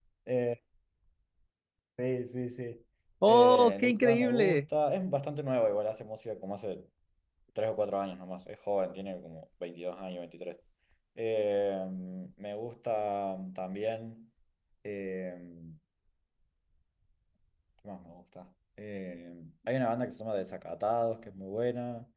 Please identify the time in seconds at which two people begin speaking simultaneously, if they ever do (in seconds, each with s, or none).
3.2 s